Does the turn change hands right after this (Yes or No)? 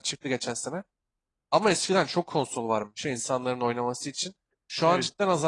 No